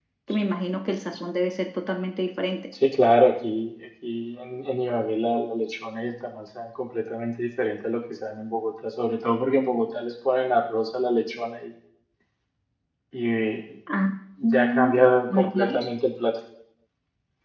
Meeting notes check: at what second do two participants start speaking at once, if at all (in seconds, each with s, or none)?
14.4 s